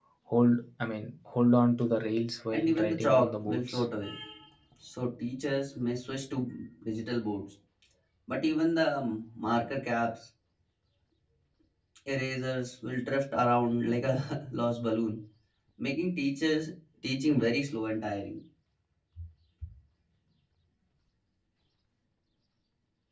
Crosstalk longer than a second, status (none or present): present